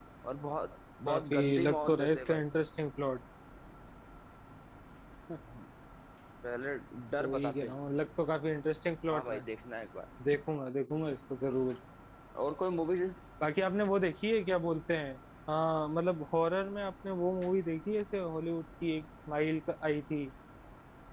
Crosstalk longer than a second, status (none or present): present